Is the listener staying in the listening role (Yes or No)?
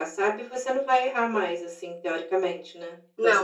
No